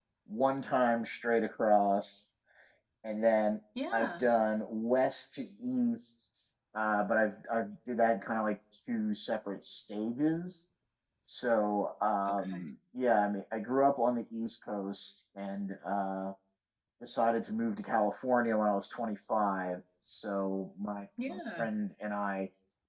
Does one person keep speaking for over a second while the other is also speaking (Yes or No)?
No